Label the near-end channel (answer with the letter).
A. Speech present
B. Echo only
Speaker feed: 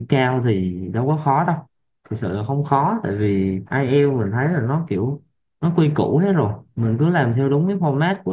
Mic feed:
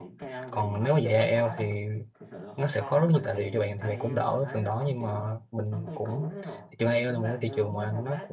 A